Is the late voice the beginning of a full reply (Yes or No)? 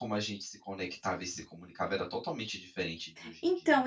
Yes